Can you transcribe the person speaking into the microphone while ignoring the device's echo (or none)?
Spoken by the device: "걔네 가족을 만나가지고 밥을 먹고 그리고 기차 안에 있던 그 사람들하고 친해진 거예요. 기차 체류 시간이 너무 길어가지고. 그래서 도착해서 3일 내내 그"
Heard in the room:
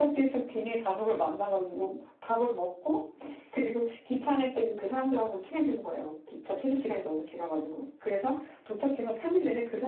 none